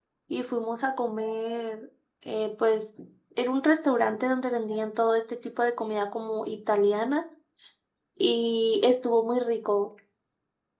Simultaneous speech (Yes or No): No